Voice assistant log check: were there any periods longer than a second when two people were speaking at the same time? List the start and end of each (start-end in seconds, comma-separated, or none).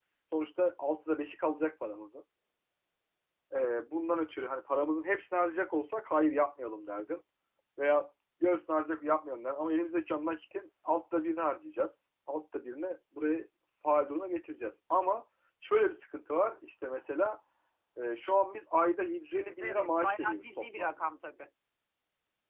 19.6-20.9